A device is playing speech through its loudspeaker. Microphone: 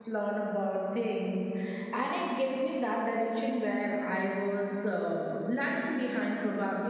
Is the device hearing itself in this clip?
No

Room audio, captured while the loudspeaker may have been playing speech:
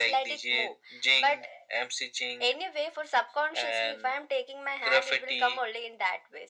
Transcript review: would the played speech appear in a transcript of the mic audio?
Yes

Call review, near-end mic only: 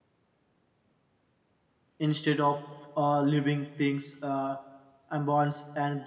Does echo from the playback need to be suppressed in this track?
No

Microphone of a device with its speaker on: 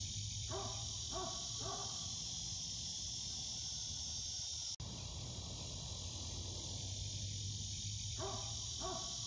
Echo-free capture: Yes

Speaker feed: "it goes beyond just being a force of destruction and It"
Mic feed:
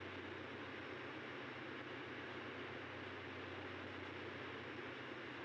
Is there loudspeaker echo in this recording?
No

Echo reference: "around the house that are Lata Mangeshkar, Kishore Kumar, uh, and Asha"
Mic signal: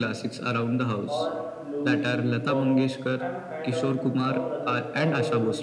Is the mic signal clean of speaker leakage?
No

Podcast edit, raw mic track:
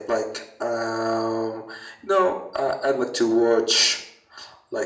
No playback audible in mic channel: No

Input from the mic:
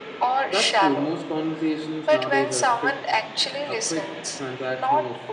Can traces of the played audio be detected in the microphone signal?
Yes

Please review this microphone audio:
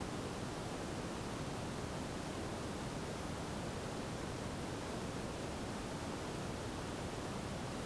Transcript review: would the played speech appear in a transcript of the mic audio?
No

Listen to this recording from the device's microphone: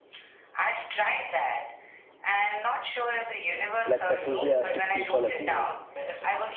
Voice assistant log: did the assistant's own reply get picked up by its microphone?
Yes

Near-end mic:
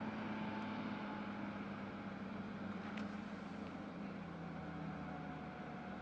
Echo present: No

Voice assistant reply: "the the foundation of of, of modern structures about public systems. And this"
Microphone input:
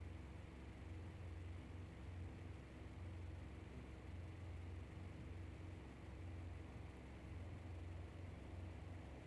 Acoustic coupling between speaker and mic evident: No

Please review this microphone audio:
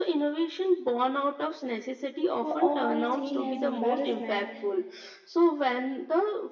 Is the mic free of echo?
No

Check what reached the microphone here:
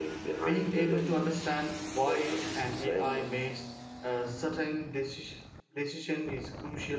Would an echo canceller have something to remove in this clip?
Yes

